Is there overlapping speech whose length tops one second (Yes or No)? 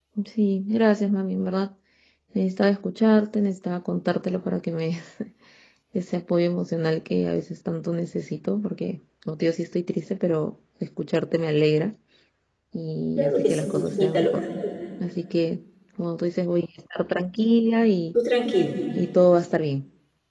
Yes